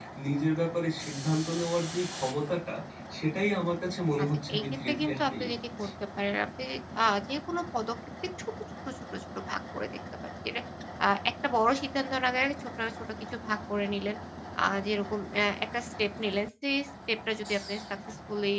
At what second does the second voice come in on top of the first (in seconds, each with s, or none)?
4.2 s